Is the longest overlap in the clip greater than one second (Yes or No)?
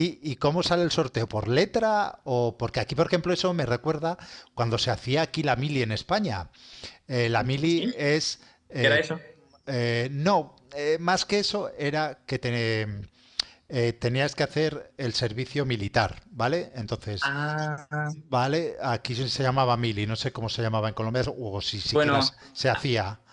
No